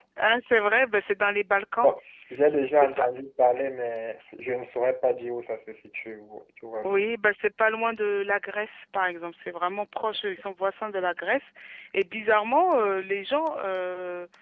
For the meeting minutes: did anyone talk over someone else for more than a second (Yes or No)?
No